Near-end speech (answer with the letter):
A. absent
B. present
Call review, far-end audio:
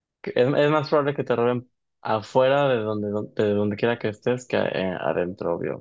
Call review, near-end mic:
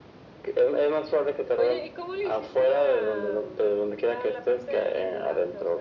B